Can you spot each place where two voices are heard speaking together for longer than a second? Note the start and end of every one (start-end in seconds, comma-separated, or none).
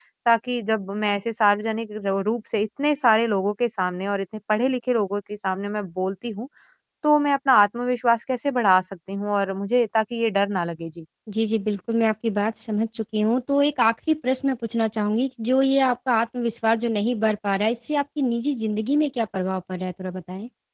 none